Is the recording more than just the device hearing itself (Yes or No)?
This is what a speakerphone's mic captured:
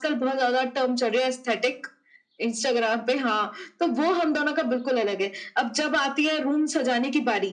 No